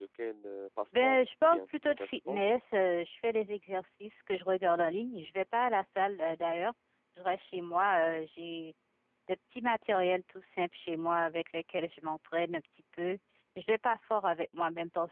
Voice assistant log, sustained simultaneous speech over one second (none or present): present